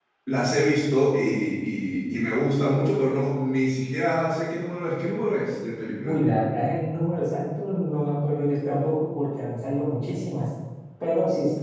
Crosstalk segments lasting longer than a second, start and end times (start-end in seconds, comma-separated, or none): none